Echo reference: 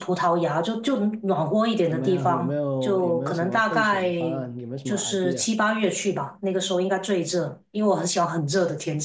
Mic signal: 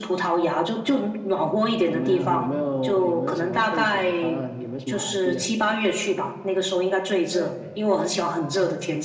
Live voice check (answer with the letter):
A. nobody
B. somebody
B